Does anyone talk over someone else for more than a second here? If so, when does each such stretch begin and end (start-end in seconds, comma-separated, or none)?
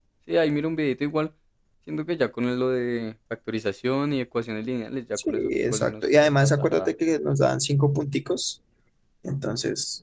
5.3-6.9